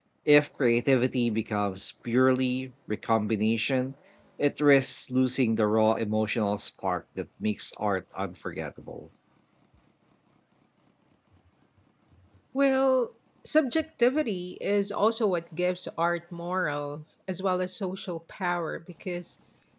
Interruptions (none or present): none